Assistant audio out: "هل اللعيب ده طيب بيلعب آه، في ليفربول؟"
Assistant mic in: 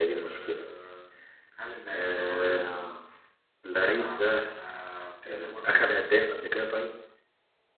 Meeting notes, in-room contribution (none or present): present